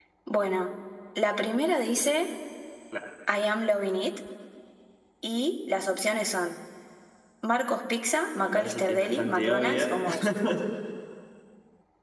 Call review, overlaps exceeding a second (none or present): present